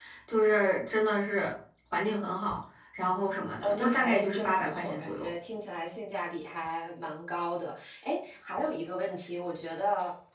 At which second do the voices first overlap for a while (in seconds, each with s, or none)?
3.6 s